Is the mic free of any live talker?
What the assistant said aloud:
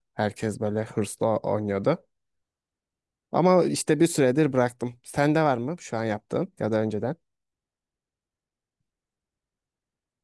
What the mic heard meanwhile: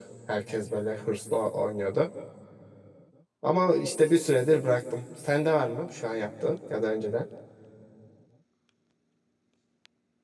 Yes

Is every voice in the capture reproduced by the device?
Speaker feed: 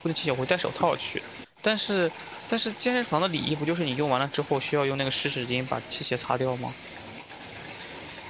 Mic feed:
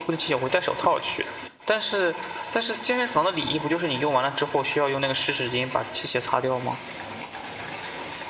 Yes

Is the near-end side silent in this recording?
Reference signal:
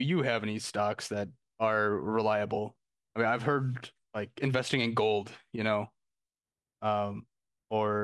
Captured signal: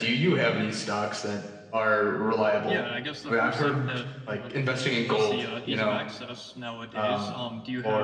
No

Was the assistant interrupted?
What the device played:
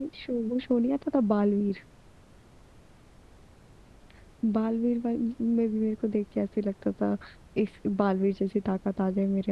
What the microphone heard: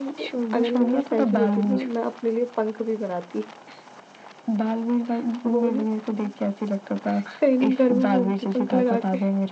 Yes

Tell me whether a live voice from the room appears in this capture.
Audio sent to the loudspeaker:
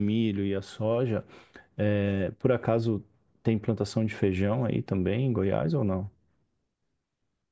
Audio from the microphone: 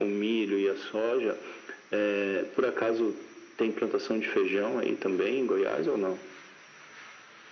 No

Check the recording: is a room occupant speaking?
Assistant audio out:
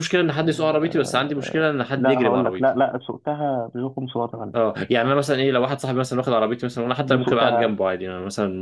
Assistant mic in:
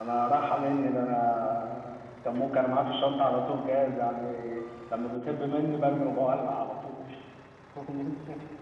Yes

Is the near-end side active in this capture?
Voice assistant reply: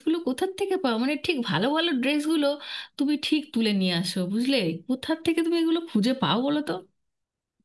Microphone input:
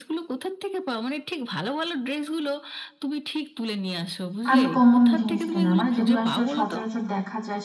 Yes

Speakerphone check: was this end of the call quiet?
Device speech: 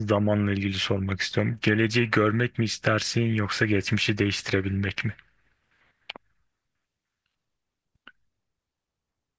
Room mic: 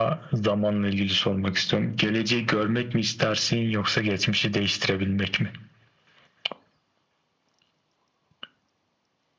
Yes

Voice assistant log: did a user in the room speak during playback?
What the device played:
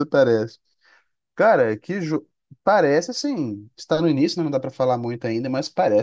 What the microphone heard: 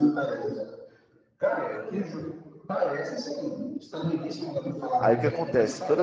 Yes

